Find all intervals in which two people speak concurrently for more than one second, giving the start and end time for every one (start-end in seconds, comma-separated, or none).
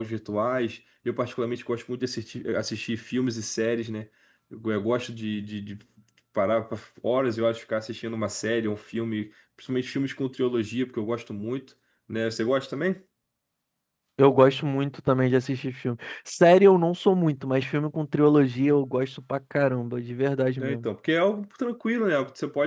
none